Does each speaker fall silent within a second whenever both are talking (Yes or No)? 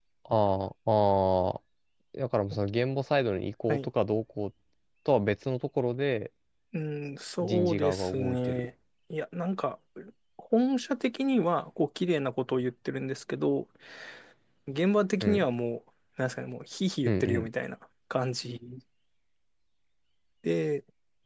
No